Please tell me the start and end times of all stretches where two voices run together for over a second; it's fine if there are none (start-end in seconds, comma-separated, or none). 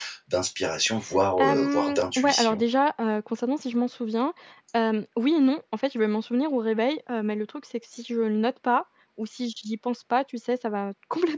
1.4-2.6